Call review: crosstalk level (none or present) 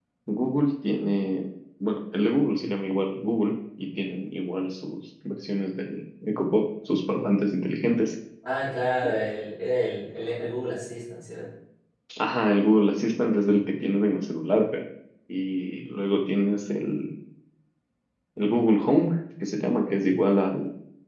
none